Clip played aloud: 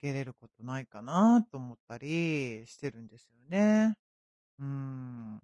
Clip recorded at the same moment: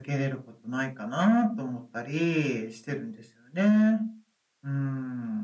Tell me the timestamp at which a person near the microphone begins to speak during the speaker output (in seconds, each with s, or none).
none